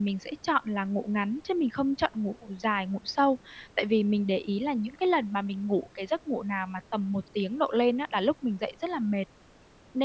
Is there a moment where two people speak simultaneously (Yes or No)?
No